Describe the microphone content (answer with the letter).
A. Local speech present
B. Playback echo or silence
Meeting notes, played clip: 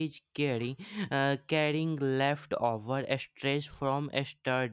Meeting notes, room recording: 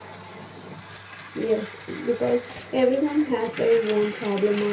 A